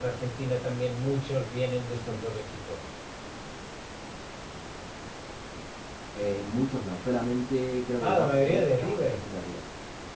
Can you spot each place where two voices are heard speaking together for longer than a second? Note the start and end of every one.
8.0-9.2

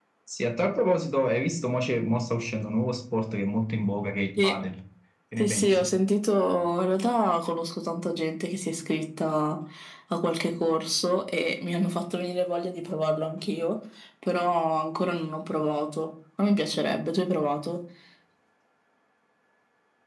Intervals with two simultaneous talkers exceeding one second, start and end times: none

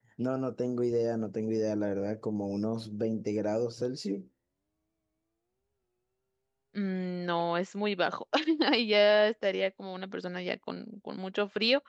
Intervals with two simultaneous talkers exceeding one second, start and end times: none

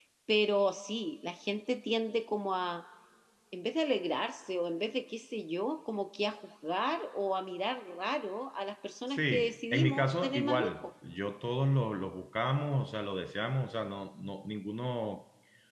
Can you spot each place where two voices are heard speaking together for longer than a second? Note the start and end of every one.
9.1-10.8

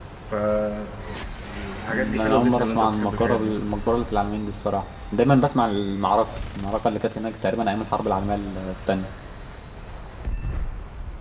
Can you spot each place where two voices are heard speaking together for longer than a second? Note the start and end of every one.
1.9-3.6

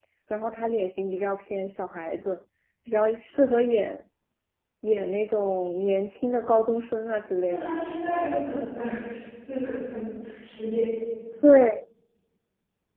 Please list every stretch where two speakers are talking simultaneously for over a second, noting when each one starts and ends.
none

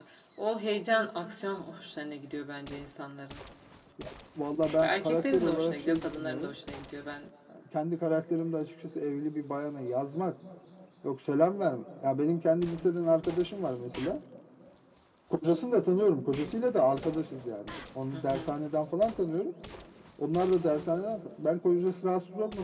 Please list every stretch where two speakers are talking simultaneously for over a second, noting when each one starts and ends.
4.8-6.5

